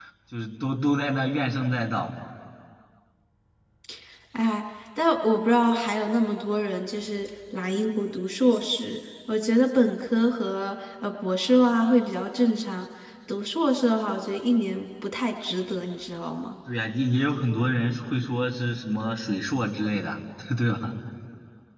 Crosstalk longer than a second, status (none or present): none